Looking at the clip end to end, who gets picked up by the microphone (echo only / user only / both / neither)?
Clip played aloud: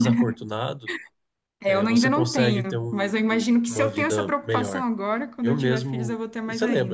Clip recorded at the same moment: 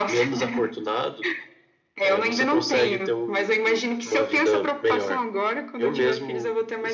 echo only